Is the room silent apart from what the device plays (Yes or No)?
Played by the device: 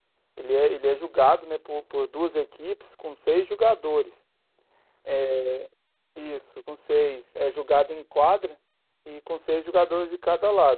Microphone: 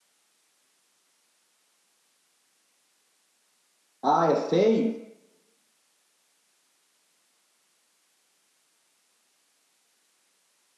No